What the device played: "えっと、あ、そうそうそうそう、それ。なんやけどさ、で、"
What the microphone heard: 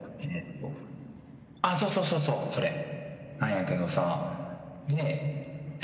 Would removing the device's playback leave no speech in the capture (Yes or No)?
Yes